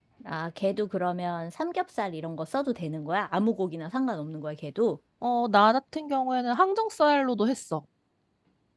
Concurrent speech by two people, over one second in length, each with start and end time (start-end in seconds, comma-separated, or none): none